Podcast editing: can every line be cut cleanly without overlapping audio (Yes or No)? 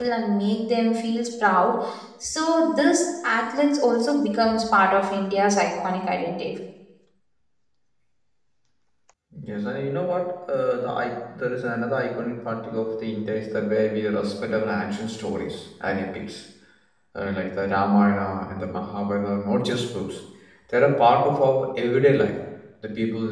Yes